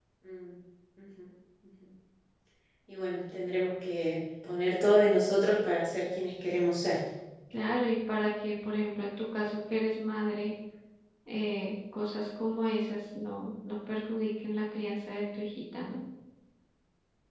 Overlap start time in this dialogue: none

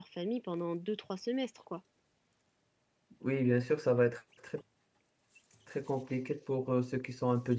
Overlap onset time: none

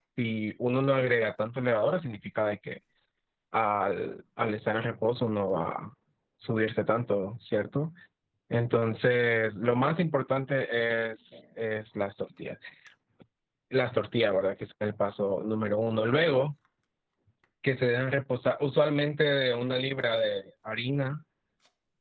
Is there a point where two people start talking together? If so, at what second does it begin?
none

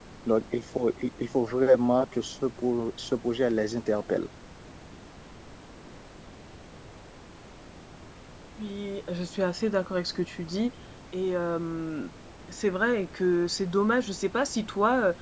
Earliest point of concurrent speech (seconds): none

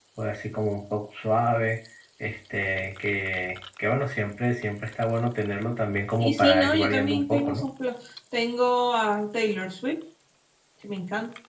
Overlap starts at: 6.2 s

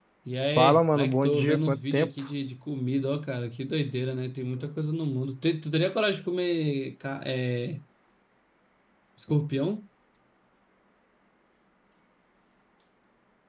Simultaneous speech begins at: 0.6 s

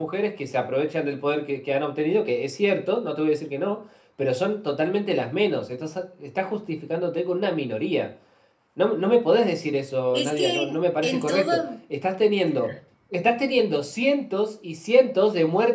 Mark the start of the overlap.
10.1 s

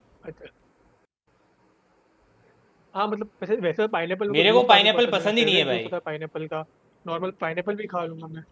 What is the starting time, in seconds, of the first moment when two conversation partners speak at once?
4.3 s

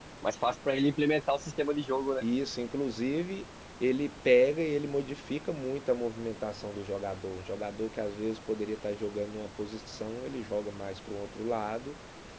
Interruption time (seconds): none

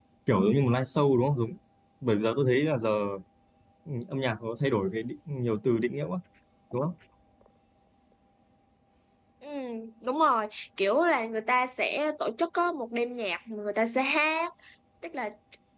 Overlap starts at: none

